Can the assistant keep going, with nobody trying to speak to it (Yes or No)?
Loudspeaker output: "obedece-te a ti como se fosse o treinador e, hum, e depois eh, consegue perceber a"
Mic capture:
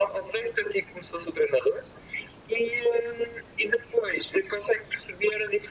Yes